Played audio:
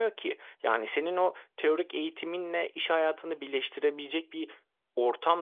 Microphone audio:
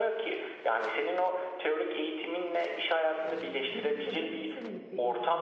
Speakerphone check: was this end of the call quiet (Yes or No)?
No